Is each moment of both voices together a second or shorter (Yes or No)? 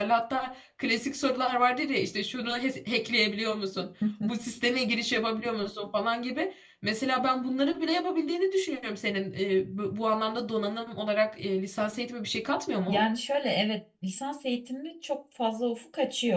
Yes